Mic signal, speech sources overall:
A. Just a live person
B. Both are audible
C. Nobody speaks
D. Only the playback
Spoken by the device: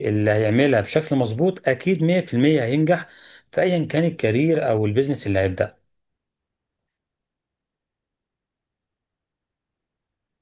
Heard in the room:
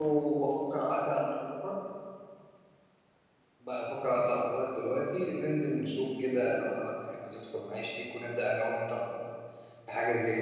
A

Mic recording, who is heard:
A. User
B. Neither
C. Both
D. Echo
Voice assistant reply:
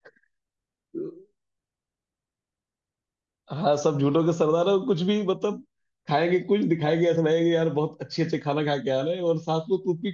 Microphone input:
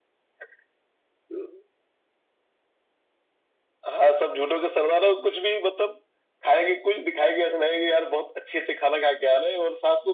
D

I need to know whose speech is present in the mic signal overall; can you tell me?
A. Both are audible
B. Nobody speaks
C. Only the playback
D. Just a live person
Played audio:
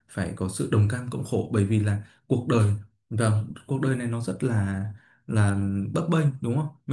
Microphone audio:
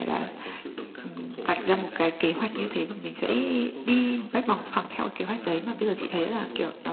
A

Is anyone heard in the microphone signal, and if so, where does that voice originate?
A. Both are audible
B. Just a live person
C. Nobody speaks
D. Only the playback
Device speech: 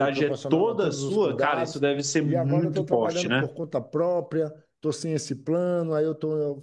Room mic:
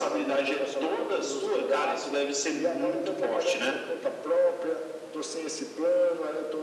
D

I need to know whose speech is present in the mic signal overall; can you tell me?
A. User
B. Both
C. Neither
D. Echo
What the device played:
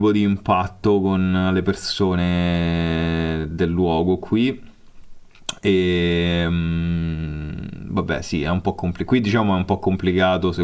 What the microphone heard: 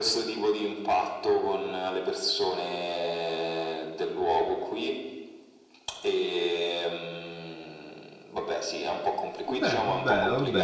B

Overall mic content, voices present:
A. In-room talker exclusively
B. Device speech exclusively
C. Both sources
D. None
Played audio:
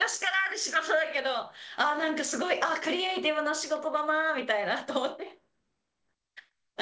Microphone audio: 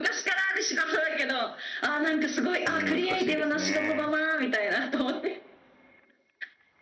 C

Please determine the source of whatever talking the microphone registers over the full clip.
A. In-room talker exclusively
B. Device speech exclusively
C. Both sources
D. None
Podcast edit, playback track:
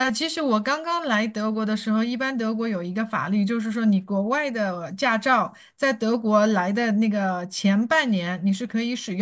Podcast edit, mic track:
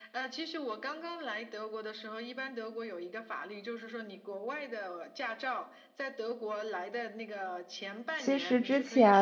C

